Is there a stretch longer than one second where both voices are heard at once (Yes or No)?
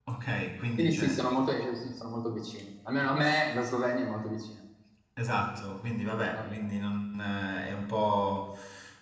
No